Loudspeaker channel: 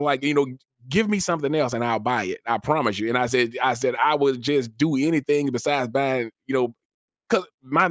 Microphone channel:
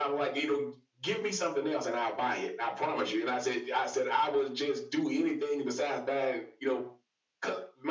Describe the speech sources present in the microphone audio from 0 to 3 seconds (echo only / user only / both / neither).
echo only